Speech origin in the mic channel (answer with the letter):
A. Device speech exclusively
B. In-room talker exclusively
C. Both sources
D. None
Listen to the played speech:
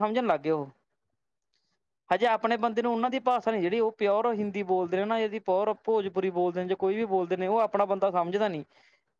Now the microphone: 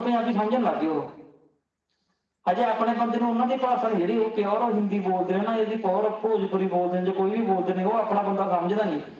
A